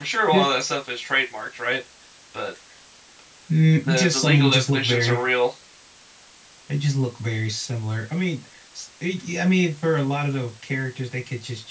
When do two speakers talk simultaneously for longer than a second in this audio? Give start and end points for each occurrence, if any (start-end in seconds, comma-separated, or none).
3.9-5.2